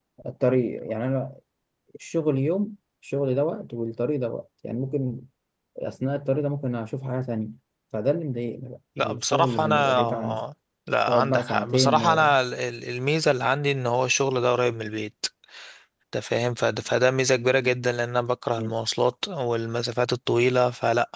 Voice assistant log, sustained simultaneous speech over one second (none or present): present